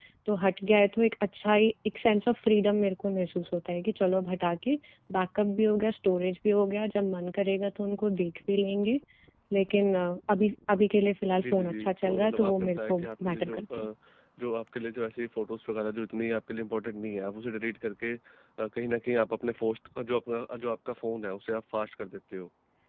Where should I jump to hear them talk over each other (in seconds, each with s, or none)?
11.3 s